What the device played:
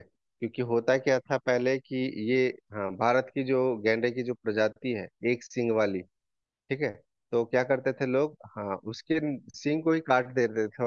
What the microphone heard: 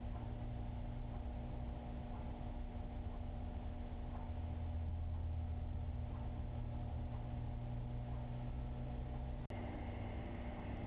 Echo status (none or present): none